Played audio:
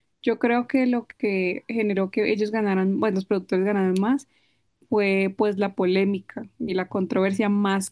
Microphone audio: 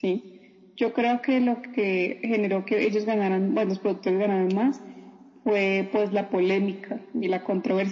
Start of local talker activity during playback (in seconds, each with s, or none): none